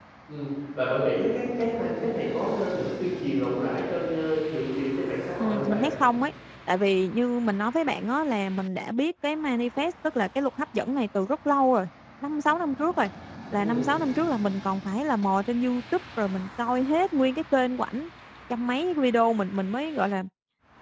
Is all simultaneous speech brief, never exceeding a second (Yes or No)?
Yes